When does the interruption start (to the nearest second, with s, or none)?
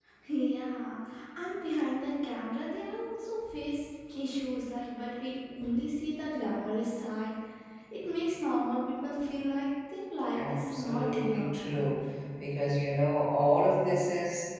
10 s